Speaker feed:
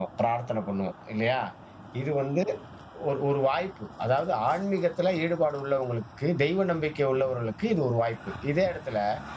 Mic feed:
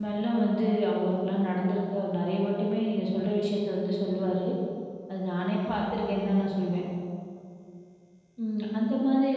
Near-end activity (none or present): present